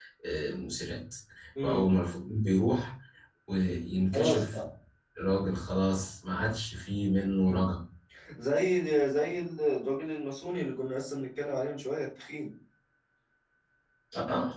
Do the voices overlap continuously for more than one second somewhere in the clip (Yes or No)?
No